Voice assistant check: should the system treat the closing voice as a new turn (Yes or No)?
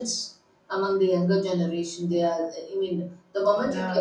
Yes